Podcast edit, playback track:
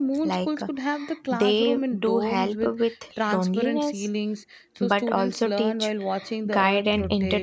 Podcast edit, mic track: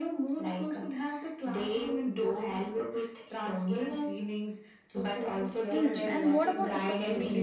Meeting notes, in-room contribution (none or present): present